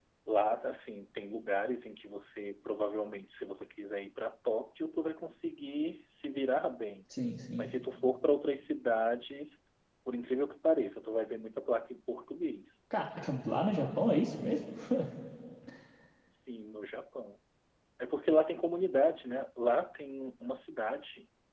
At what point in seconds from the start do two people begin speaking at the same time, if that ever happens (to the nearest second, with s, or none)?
none